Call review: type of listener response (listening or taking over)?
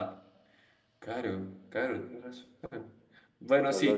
listening